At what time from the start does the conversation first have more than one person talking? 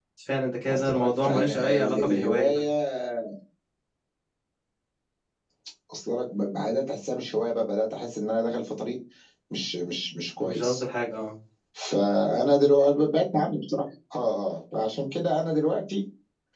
0.7 s

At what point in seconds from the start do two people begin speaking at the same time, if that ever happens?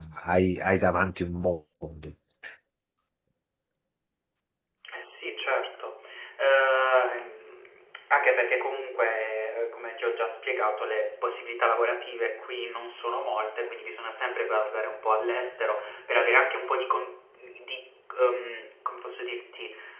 none

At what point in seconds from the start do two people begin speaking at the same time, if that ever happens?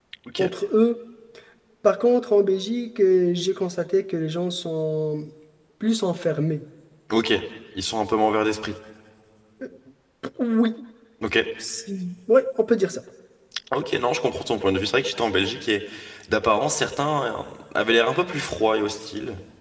none

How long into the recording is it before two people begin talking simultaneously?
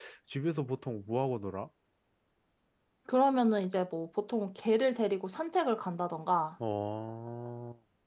none

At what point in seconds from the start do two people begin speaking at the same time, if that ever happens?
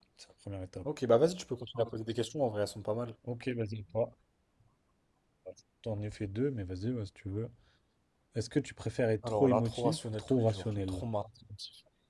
9.2 s

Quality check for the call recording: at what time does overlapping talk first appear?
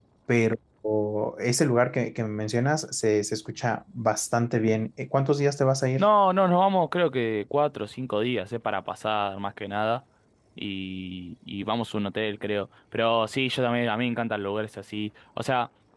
none

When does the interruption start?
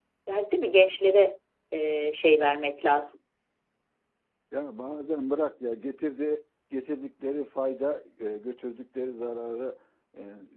none

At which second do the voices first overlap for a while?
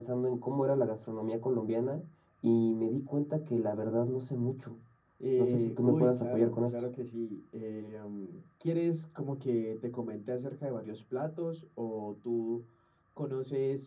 5.4 s

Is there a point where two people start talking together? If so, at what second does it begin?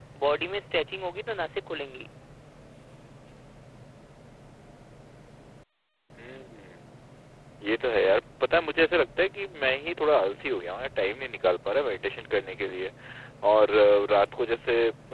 none

